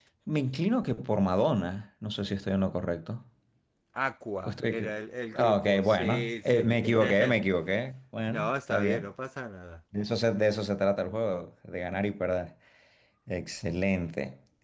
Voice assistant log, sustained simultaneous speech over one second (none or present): present